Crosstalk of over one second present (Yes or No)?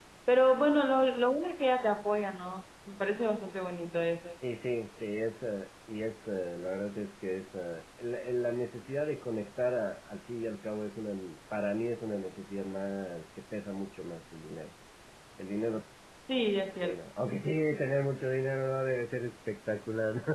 No